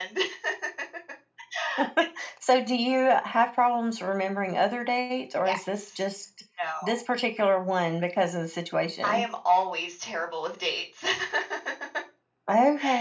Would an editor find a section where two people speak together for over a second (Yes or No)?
No